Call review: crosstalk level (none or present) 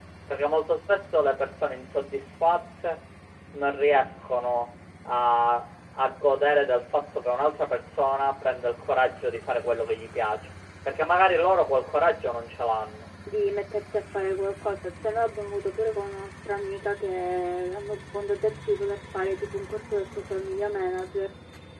none